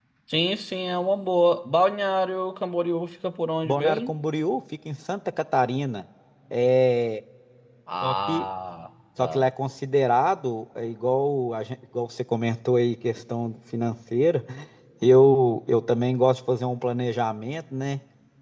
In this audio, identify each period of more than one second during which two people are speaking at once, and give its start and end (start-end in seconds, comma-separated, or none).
none